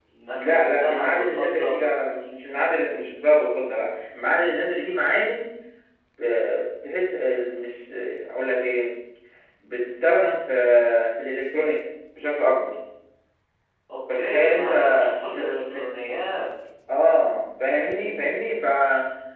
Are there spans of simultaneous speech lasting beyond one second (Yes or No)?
Yes